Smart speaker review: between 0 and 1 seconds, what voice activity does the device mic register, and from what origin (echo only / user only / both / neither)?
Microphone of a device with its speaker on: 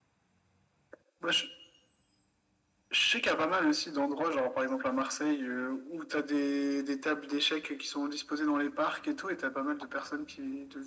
neither